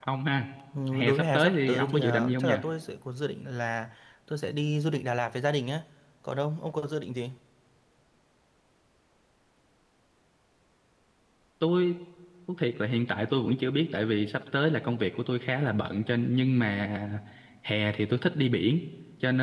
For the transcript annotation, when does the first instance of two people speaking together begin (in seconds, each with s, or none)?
0.9 s